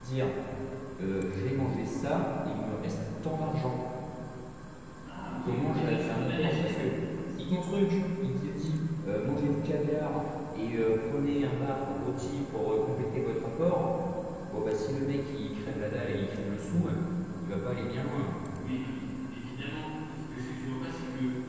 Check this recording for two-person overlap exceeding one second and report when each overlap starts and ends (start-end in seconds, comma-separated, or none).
5.4-6.9